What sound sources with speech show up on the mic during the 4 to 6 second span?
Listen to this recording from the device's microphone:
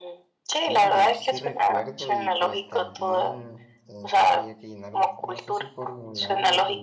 both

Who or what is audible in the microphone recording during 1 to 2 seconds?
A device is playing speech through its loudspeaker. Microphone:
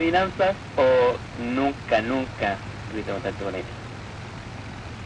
echo only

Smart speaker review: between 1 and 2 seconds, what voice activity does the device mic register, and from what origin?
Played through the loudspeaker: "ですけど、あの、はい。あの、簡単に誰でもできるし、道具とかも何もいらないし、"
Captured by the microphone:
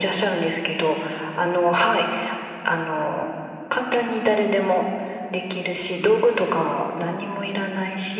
echo only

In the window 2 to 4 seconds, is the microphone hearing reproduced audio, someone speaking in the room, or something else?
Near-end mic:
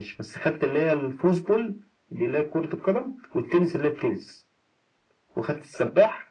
echo only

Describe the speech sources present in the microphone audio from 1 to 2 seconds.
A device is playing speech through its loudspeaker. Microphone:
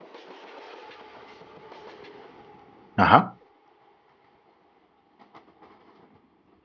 neither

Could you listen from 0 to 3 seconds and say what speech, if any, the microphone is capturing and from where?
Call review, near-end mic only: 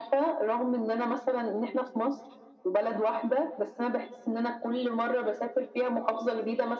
echo only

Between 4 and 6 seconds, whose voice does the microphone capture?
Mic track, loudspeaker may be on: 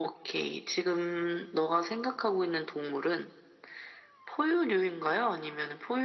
echo only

